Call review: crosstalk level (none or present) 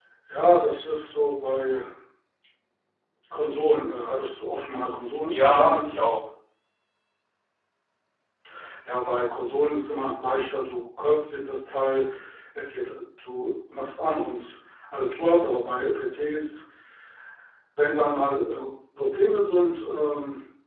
present